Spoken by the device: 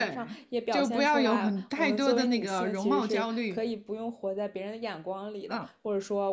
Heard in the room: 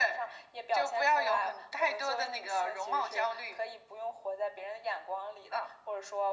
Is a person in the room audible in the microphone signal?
No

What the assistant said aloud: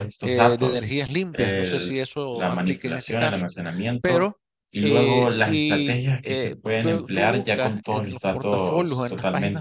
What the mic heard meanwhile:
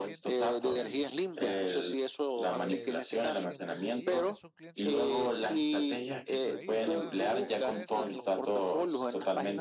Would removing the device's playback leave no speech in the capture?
No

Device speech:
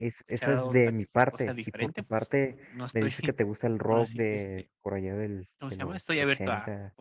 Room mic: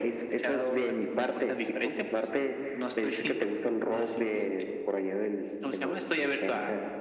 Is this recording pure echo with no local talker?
Yes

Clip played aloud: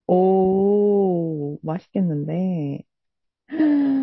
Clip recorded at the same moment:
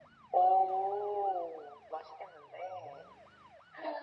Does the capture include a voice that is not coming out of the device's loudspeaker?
No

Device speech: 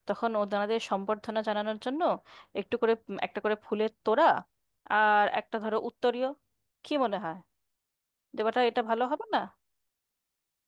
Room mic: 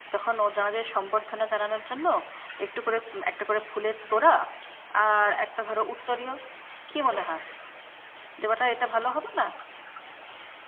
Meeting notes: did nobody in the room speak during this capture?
Yes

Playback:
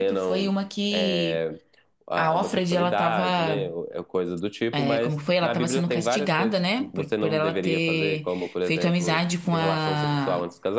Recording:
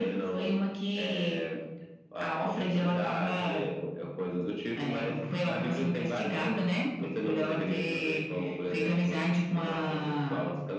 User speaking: No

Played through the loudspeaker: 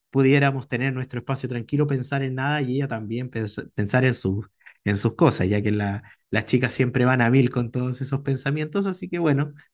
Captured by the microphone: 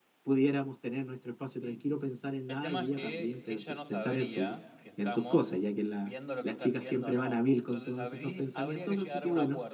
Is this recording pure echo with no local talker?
No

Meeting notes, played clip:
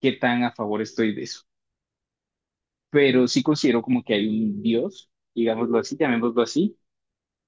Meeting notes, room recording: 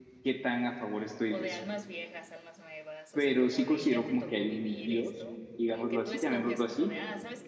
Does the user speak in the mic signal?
Yes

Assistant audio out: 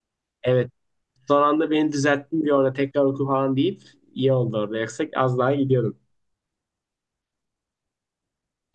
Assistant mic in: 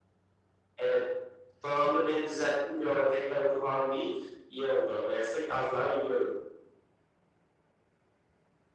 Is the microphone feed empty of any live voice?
Yes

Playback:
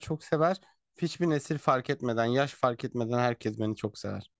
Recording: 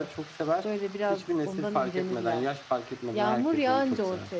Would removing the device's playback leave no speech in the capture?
No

